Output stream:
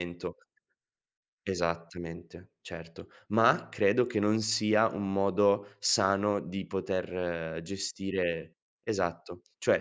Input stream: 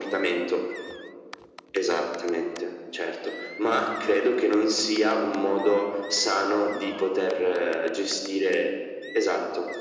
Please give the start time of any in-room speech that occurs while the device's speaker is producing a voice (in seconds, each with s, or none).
none